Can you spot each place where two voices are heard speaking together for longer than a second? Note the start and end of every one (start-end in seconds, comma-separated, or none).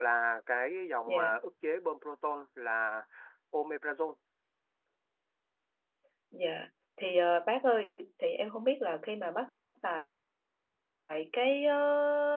none